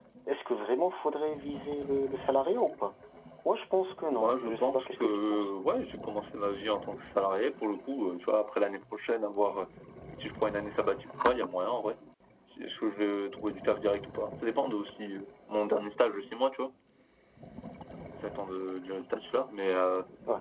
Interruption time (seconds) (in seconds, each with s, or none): 4.1 s